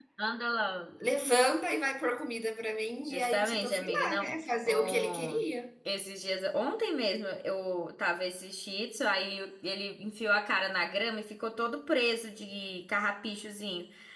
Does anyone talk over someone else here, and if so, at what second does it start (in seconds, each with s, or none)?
3.0 s